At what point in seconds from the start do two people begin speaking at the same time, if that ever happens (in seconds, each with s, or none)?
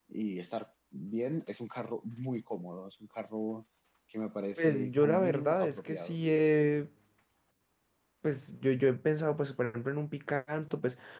4.6 s